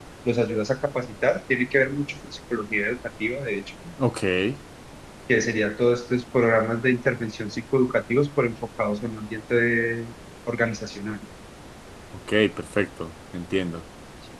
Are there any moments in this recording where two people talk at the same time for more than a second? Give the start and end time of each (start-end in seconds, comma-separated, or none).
none